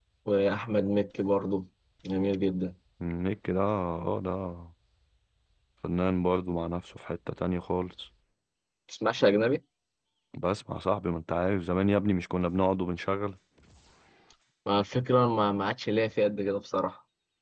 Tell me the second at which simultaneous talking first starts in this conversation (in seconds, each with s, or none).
none